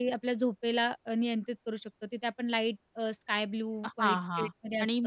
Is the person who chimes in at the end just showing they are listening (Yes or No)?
No